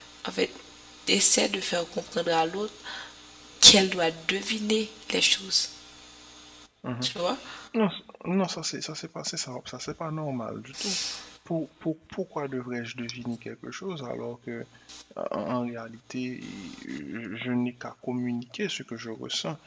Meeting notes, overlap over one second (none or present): none